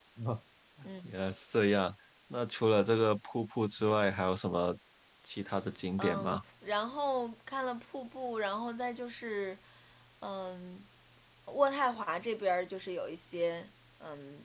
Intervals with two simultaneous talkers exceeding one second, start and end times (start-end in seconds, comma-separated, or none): none